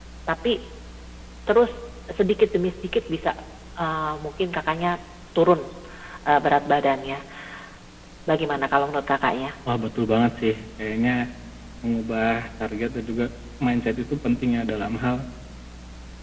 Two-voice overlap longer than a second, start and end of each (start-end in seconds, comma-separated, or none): none